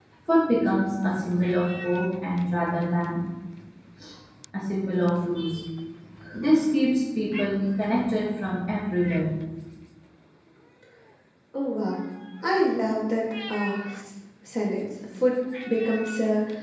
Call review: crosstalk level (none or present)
none